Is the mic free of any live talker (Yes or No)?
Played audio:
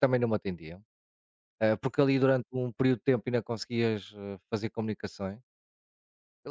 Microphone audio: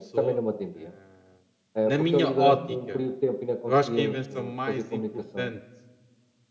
No